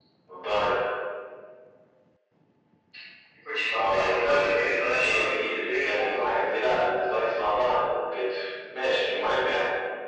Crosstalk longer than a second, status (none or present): present